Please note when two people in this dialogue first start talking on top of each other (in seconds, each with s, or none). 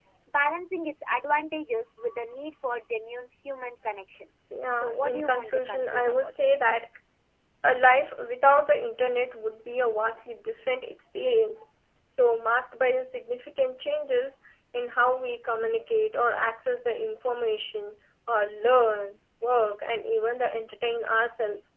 4.7 s